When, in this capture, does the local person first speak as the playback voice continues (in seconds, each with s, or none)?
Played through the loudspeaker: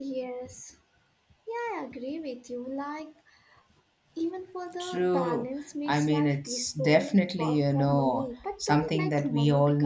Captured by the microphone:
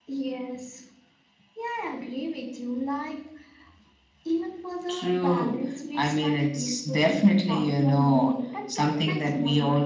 none